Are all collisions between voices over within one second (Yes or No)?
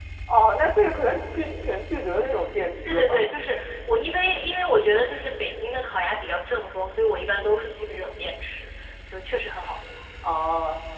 Yes